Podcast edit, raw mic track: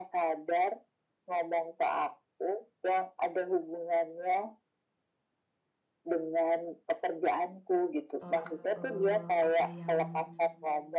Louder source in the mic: echo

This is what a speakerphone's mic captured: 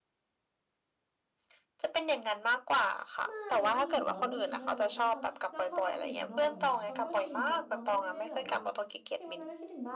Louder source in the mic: echo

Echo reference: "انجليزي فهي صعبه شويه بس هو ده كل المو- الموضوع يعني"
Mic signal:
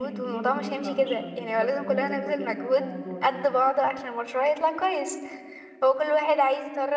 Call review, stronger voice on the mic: user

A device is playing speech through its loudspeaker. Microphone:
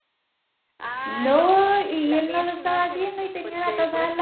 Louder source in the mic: user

